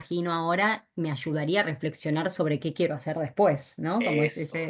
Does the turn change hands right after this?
No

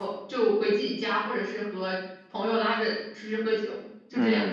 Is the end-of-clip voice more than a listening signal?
Yes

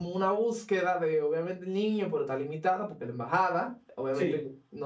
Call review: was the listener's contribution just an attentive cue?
Yes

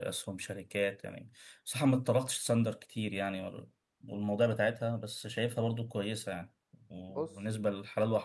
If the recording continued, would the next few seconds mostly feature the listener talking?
No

